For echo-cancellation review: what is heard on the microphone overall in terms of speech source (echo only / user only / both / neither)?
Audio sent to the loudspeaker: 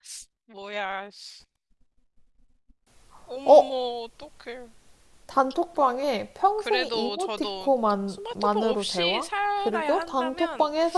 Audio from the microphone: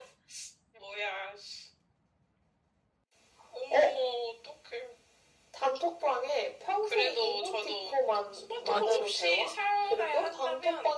both